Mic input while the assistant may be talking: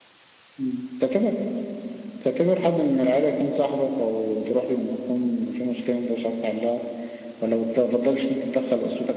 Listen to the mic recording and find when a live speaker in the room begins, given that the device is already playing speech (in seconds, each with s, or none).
none